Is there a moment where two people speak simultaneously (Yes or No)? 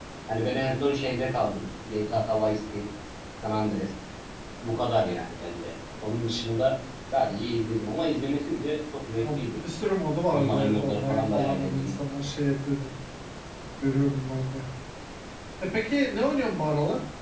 Yes